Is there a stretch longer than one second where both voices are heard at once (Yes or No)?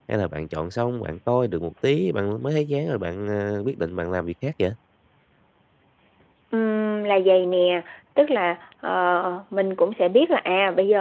No